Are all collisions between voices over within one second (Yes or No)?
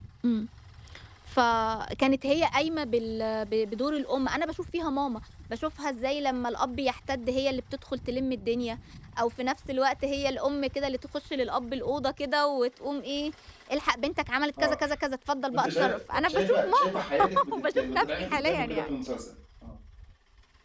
No